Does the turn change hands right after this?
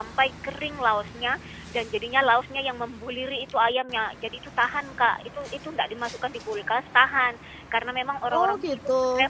No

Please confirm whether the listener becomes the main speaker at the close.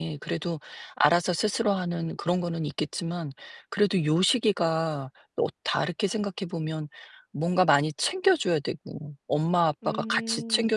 No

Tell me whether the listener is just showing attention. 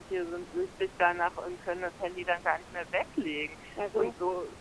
Yes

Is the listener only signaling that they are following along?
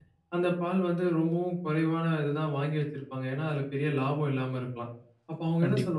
Yes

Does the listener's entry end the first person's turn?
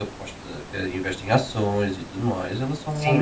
Yes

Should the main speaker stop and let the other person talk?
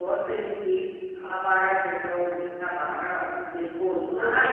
Yes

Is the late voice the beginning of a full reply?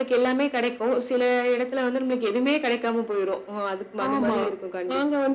Yes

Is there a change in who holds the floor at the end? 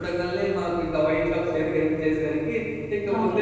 No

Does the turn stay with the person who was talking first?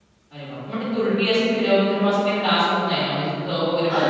No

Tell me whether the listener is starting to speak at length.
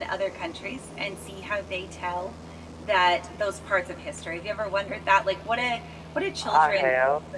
No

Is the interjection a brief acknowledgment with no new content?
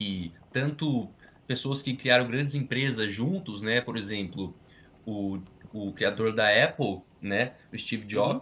Yes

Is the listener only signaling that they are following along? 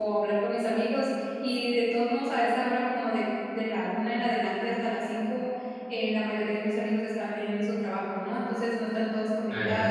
Yes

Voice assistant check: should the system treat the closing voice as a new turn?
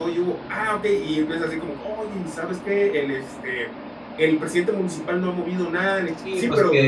Yes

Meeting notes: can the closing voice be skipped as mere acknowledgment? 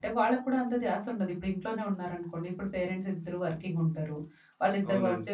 Yes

